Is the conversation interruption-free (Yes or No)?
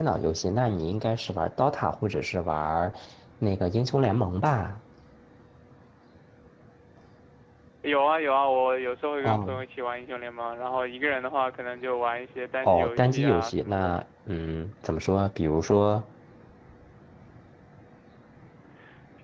No